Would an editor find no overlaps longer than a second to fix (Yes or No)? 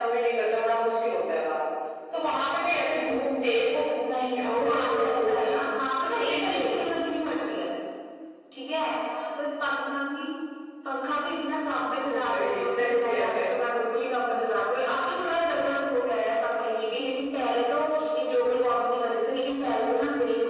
No